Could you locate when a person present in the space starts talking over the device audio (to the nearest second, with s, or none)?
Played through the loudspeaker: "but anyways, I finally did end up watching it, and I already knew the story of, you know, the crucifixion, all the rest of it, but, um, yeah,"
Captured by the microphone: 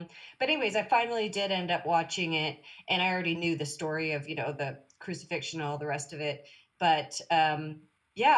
none